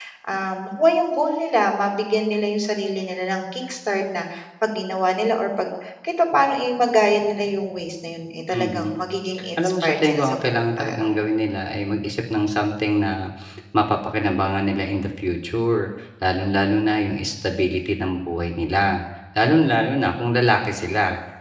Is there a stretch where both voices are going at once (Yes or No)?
Yes